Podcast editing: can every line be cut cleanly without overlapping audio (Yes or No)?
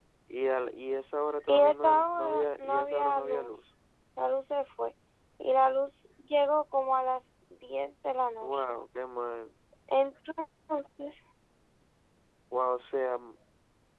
No